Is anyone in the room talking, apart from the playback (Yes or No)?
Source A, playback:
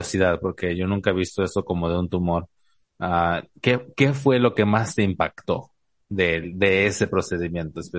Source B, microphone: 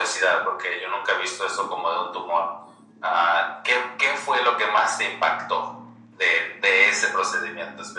No